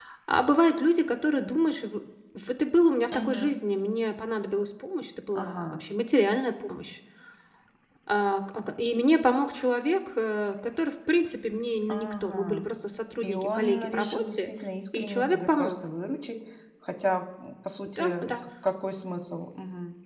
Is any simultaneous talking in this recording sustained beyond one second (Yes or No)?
Yes